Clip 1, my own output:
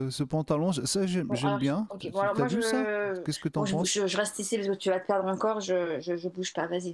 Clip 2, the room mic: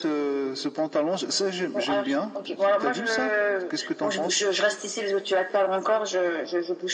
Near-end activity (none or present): none